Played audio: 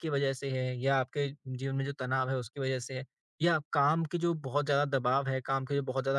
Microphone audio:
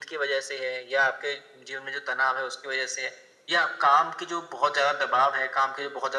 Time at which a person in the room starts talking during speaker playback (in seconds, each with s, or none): none